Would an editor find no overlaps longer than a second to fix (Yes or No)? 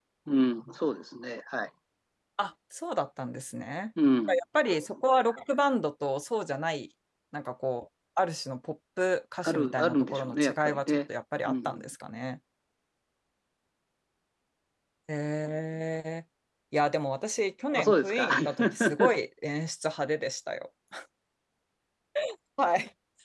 No